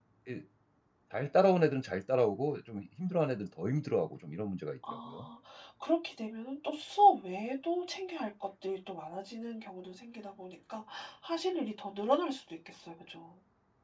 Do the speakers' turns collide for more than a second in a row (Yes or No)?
No